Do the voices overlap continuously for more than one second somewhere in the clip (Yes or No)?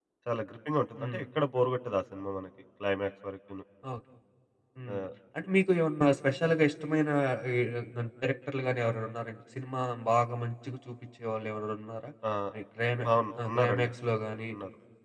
No